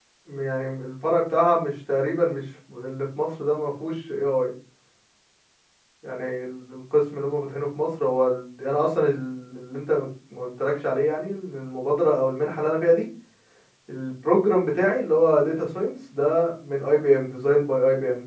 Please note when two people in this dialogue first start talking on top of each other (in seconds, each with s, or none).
none